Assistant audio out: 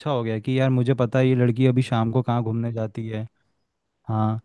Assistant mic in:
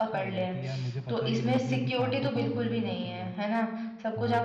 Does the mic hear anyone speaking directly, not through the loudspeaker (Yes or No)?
Yes